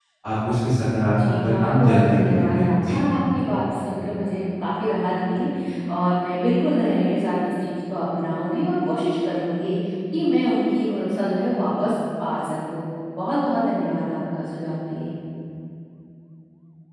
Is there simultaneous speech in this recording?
Yes, from 1.1 s

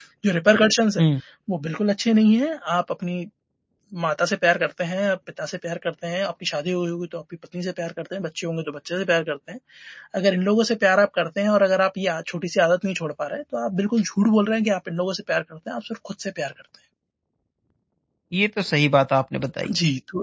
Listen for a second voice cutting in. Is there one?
No

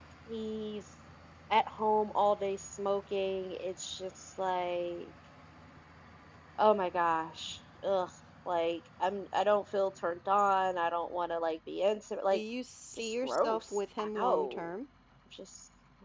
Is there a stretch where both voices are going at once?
Yes, from 13.0 s

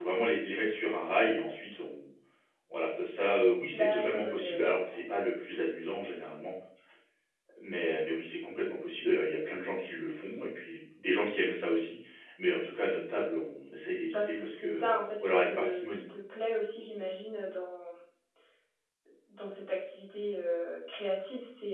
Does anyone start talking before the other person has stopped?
Yes, from 3.7 s

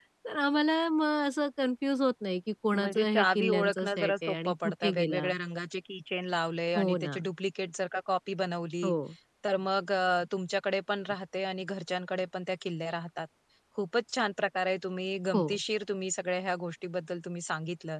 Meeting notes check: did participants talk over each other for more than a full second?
Yes, from 2.7 s

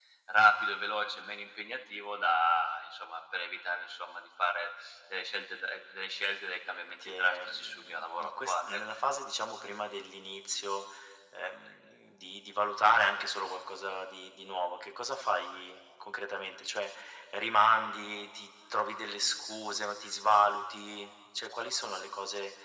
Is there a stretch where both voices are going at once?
Yes, from 7.0 s

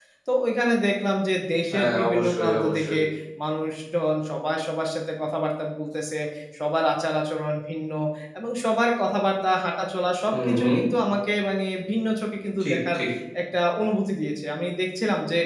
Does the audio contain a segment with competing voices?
Yes, from 1.7 s

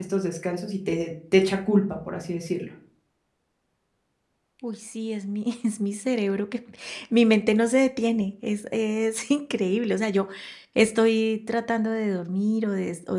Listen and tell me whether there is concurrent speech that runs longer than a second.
No

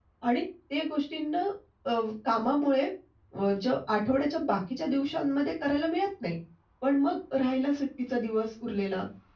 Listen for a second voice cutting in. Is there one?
No

